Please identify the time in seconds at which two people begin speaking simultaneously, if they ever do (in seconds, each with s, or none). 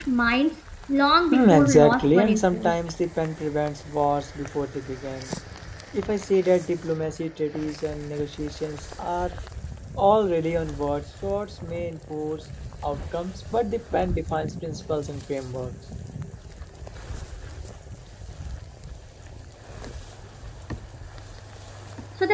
1.3 s